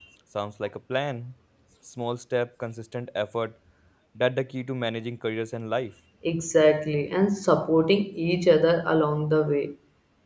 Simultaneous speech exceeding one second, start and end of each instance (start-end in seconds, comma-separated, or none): none